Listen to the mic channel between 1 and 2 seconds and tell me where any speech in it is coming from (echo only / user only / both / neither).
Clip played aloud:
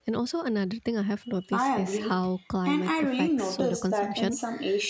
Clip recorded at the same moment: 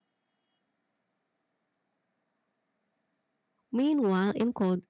neither